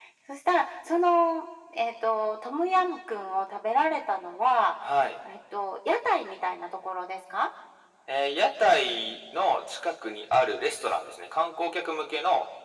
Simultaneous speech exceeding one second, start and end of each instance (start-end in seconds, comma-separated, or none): none